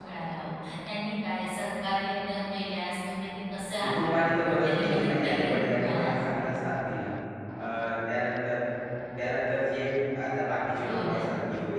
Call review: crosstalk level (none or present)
present